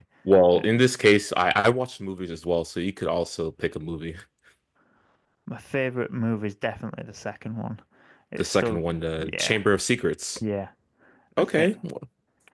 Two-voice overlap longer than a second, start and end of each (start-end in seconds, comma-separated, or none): 8.4-9.6